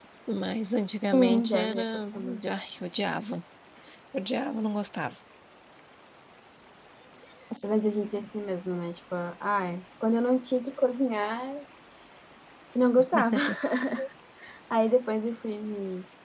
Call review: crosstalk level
present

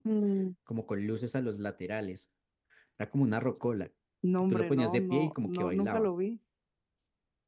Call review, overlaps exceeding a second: present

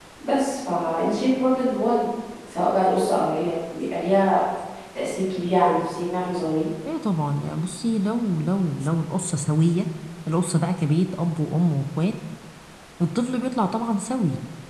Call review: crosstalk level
none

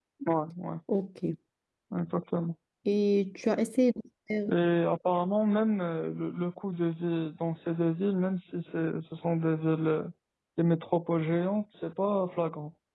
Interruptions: none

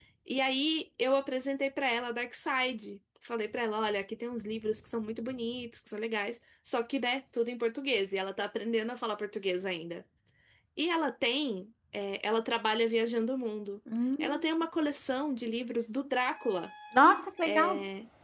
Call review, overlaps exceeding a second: none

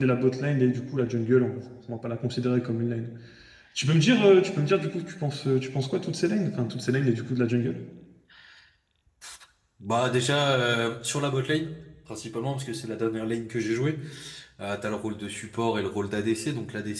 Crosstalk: none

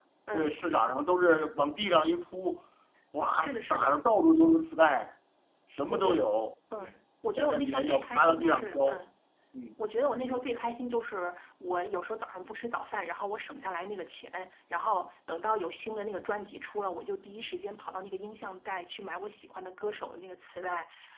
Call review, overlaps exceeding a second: present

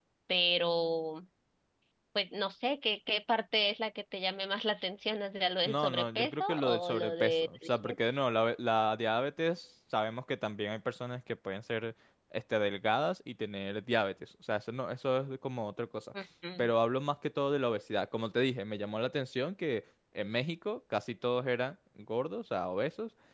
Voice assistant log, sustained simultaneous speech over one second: present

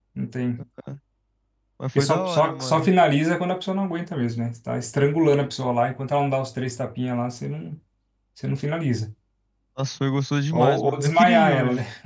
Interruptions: present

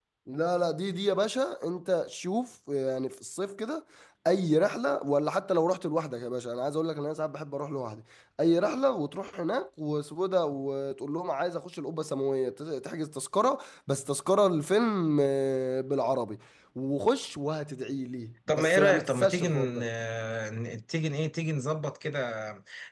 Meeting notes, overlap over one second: present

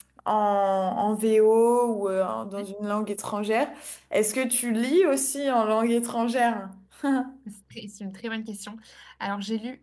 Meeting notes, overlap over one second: none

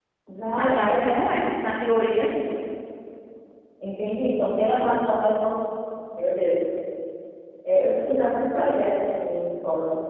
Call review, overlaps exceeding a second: none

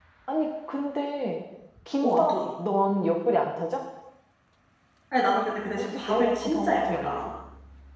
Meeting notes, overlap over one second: present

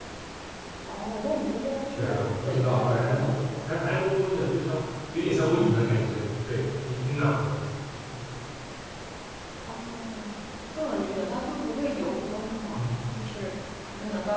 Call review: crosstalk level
present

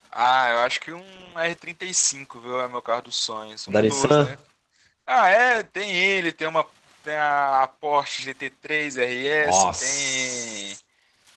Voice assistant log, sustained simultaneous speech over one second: present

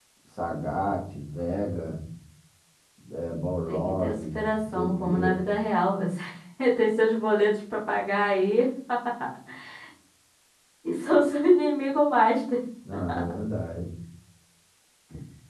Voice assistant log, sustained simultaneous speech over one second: present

